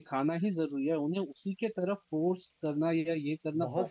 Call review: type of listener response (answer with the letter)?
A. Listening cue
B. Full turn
B